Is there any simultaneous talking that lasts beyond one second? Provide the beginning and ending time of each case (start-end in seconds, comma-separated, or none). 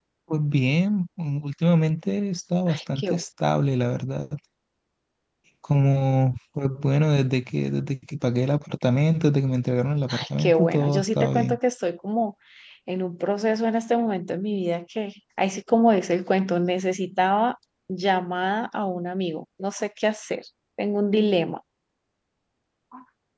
10.1-11.6